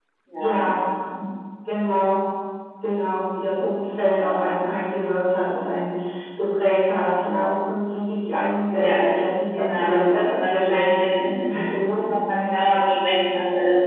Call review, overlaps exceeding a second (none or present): present